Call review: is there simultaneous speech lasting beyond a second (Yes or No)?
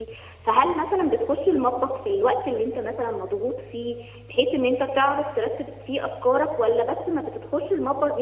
No